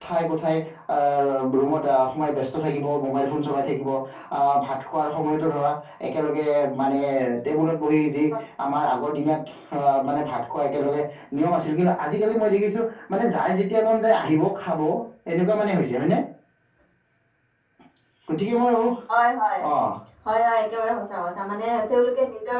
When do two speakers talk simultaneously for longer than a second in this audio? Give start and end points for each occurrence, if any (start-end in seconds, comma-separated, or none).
none